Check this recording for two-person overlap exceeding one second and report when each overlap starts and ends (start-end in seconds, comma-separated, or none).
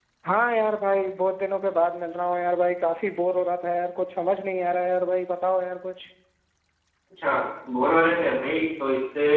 none